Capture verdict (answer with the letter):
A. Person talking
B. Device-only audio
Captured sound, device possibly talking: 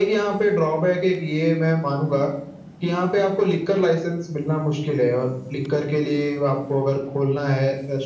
B